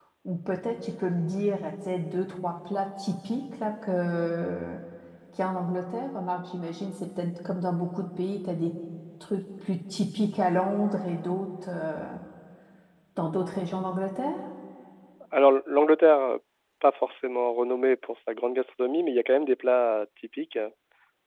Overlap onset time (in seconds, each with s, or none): none